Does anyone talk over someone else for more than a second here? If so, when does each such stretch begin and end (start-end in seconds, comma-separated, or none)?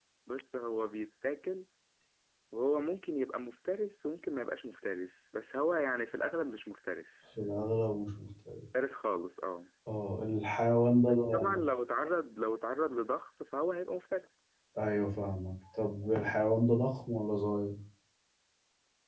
none